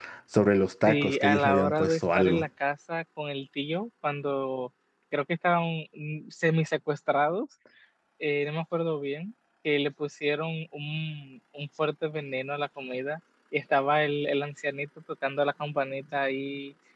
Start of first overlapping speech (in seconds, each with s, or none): 0.9 s